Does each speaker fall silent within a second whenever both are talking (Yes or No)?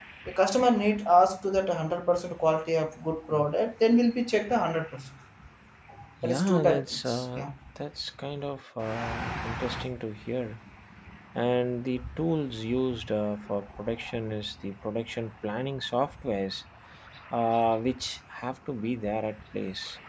No